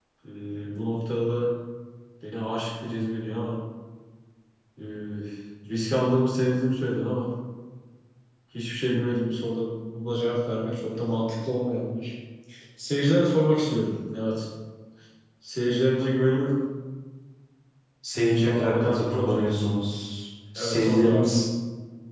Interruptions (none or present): present